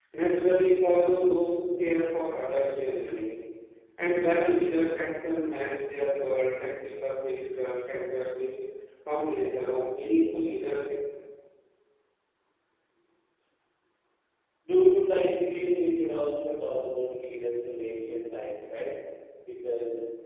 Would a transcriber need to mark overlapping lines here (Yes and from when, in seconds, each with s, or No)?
No